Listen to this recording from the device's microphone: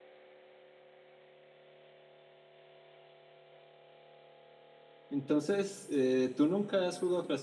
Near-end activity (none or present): present